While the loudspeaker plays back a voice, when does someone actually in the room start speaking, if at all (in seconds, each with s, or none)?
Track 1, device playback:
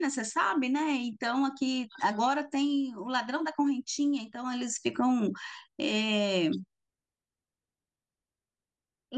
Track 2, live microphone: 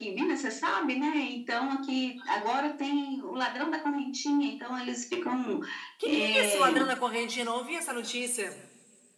6.0 s